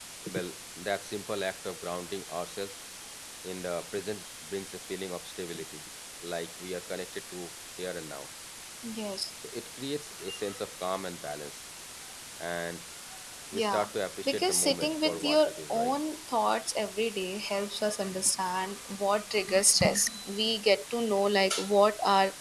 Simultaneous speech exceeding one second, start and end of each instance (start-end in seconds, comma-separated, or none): 14.2-15.9